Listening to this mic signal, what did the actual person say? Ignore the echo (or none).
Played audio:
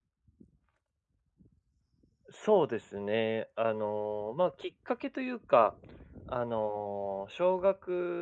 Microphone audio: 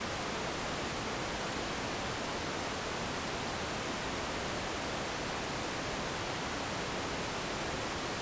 none